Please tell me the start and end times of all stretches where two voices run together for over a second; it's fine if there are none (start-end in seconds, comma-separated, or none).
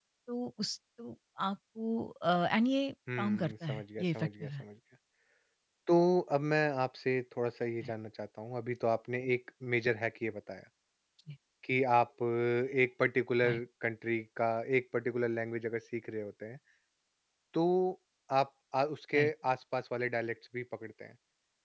3.2-4.6